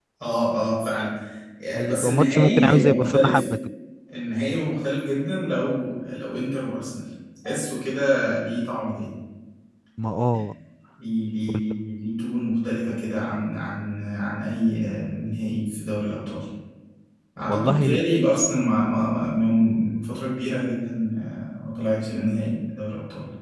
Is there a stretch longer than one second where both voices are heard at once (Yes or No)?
Yes